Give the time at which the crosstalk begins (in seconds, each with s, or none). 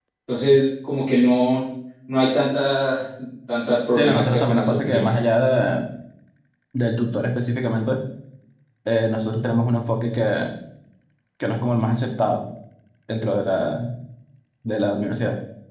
3.9 s